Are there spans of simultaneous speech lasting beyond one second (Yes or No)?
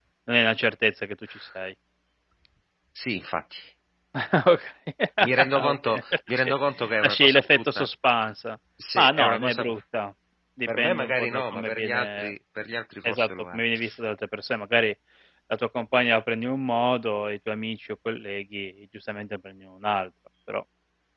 Yes